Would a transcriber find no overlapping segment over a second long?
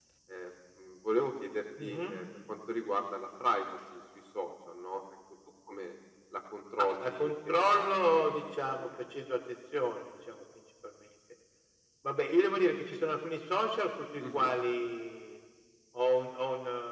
No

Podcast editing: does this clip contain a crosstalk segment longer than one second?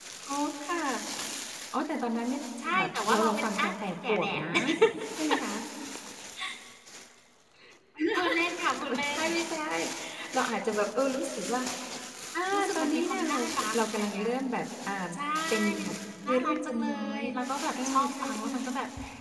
Yes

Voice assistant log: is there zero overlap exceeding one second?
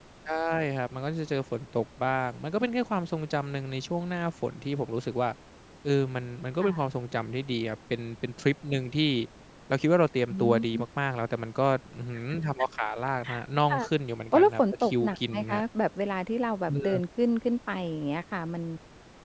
No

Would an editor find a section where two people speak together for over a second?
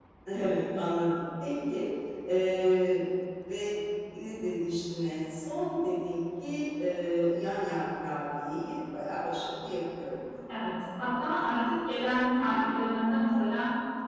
No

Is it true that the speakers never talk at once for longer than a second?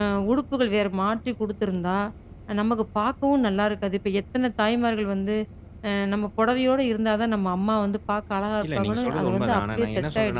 No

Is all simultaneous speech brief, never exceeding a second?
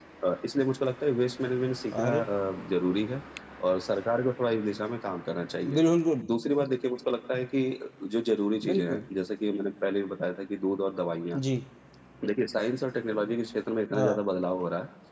Yes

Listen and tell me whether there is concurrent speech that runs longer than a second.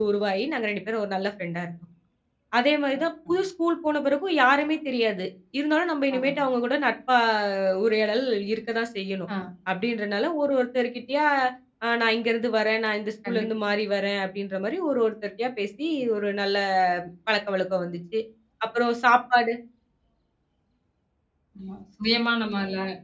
No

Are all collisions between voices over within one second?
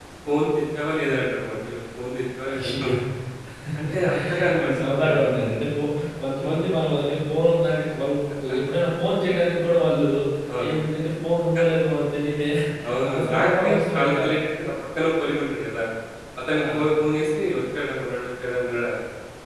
No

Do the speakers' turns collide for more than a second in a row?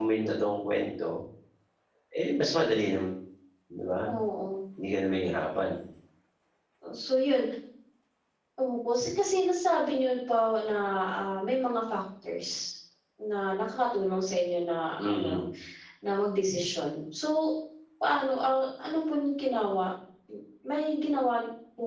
No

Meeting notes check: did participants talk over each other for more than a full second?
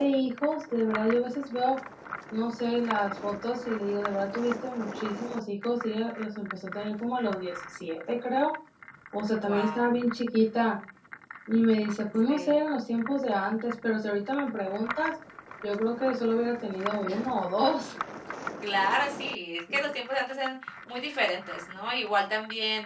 No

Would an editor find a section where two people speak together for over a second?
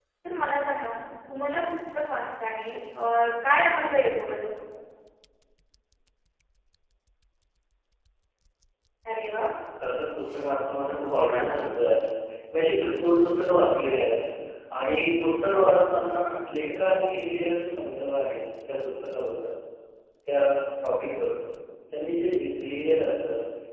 No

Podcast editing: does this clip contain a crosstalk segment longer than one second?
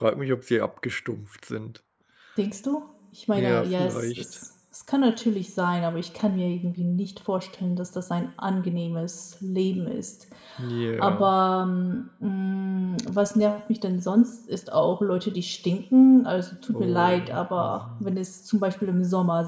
Yes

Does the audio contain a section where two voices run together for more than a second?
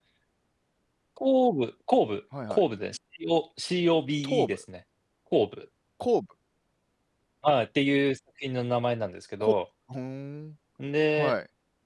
No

